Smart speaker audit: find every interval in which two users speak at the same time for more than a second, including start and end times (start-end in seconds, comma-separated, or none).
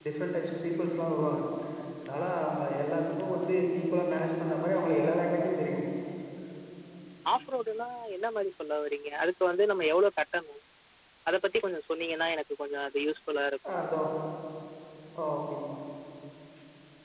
none